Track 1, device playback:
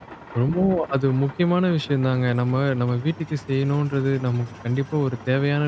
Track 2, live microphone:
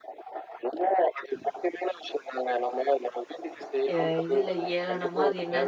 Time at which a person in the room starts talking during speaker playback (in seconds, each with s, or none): 3.9 s